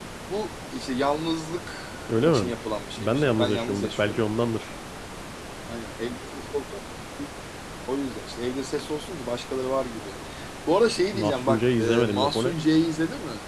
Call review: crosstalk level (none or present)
present